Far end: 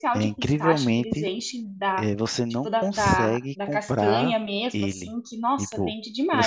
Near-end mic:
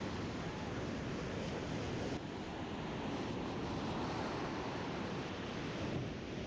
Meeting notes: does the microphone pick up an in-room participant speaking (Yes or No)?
No